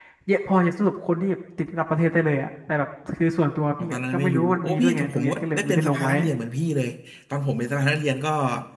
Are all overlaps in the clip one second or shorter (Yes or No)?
No